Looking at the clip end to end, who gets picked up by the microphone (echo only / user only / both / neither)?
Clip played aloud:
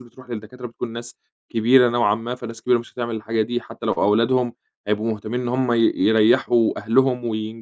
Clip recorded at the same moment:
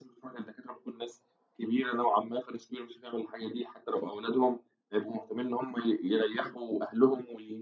echo only